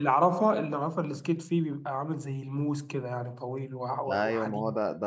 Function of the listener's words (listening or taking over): taking over